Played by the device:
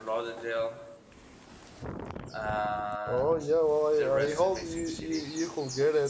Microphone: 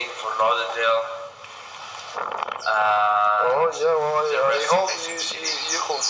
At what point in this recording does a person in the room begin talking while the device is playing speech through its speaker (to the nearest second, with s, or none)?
none